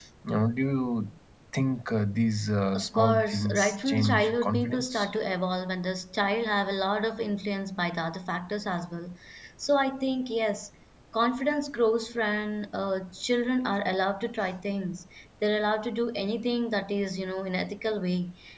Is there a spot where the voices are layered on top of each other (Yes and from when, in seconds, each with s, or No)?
Yes, from 2.8 s